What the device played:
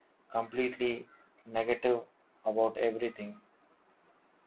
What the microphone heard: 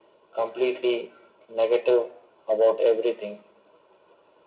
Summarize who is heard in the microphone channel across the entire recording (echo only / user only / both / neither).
echo only